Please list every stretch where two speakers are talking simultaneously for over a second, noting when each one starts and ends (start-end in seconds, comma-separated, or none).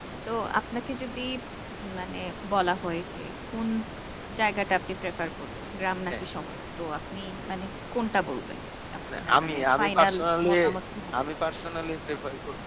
9.2-10.5